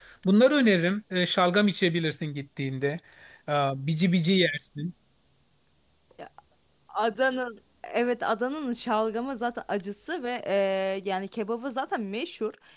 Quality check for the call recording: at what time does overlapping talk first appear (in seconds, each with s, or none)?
none